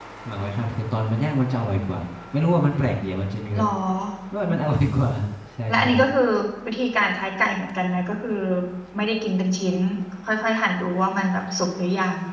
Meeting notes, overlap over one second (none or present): none